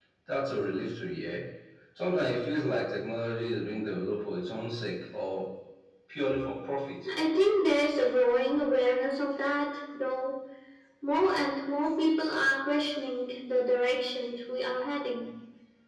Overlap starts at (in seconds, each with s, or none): none